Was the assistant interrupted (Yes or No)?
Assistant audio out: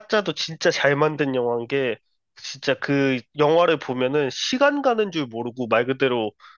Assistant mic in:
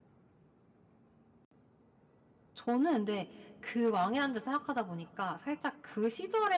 Yes